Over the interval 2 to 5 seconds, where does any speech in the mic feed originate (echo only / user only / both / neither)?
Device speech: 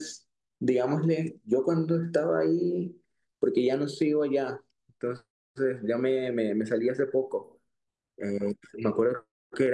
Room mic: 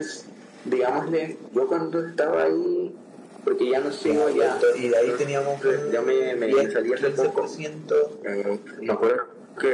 both